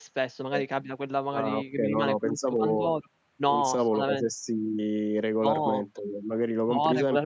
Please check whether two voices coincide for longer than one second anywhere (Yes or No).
Yes